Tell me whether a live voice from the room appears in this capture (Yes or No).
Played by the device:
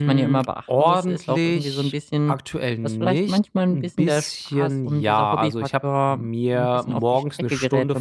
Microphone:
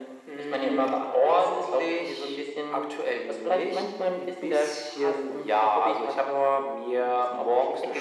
No